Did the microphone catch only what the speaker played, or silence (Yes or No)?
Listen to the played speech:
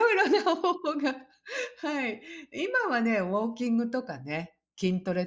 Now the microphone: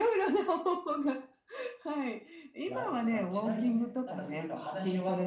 No